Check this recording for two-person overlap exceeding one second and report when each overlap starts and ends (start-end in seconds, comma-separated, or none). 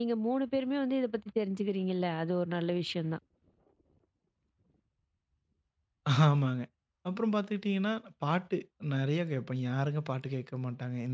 none